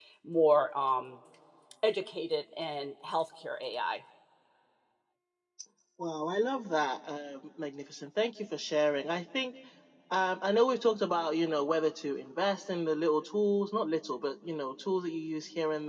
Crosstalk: none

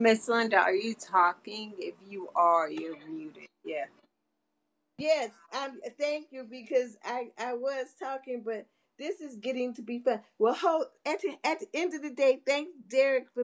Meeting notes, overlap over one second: none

